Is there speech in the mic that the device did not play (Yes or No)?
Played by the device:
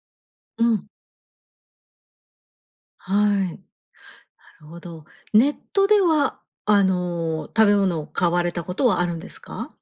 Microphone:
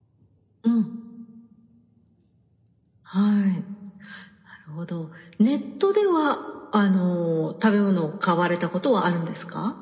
No